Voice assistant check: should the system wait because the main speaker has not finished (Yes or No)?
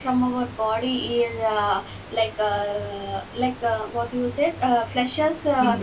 Yes